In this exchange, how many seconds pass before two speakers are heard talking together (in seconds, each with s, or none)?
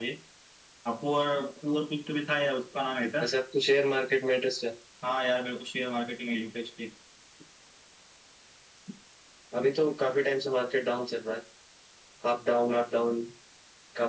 none